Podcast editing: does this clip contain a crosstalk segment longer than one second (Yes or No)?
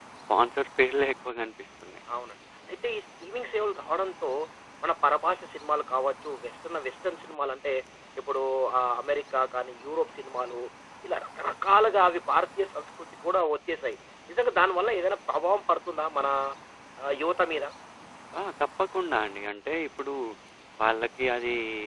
No